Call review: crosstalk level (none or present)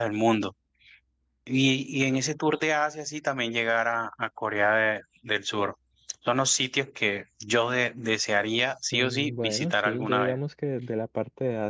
present